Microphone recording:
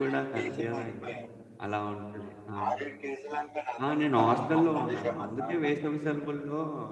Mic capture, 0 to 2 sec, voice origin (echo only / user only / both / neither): both